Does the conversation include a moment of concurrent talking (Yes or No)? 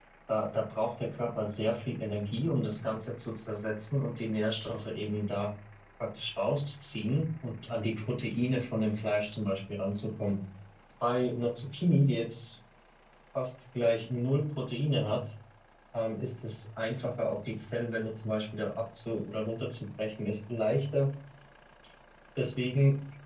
No